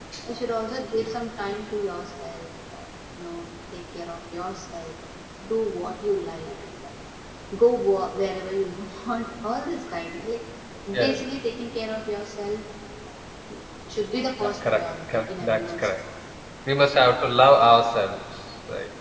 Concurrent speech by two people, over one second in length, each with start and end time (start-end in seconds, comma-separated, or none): 14.4-16.0